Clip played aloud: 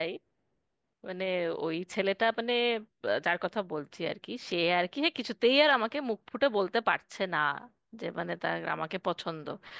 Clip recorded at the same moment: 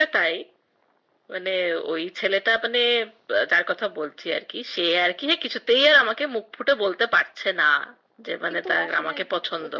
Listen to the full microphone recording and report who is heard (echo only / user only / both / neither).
both